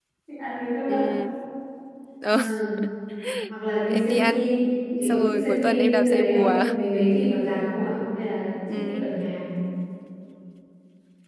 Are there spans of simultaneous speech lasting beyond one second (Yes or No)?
Yes